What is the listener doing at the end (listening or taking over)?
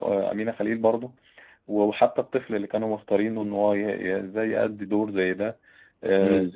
listening